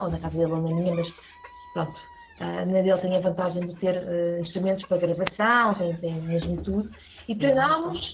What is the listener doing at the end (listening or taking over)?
listening